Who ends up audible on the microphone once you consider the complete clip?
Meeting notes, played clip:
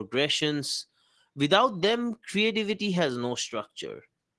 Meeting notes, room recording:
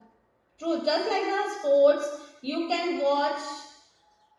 user only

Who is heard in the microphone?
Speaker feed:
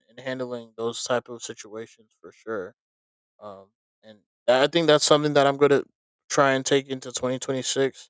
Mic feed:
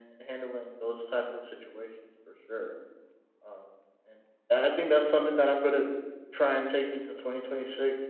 echo only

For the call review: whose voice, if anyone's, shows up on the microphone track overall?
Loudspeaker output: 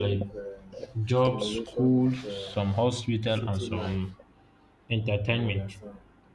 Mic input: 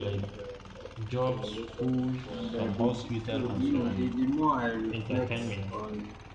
both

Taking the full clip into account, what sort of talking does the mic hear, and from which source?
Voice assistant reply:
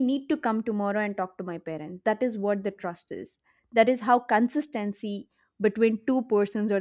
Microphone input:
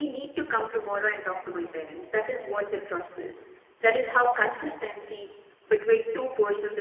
echo only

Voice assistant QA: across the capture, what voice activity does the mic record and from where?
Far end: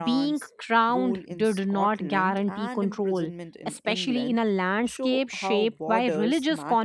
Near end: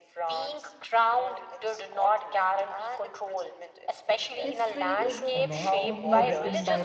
both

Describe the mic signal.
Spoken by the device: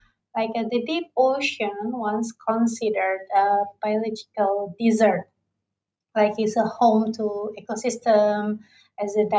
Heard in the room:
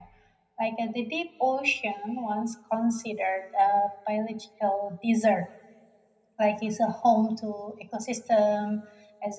echo only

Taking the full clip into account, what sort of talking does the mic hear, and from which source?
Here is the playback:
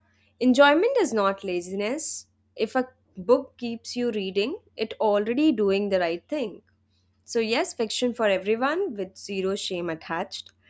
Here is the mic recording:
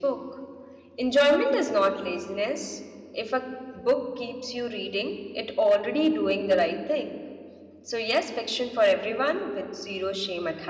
echo only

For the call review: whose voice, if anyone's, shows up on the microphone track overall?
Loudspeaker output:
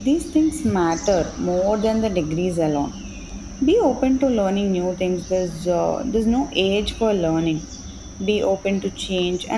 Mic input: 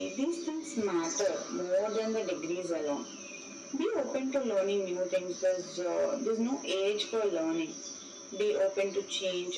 echo only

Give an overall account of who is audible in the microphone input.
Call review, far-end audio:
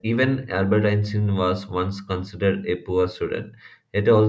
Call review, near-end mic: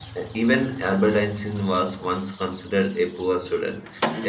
echo only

